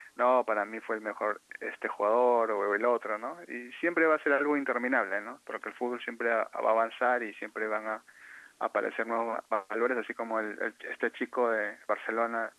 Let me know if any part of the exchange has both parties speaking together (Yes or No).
No